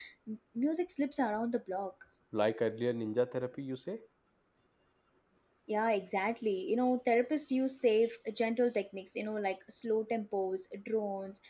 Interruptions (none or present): none